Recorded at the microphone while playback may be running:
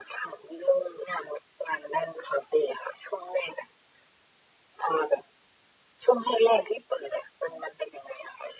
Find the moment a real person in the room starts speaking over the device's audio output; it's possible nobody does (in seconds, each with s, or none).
none